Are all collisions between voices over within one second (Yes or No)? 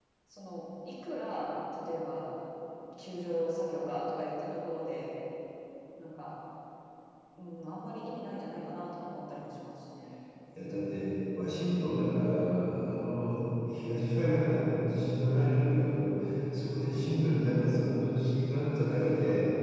Yes